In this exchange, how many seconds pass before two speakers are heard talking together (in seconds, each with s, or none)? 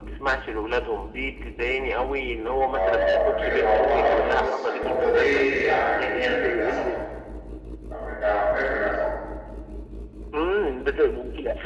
2.6 s